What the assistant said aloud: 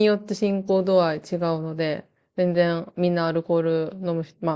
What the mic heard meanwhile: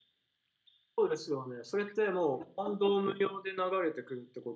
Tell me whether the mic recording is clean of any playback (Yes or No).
Yes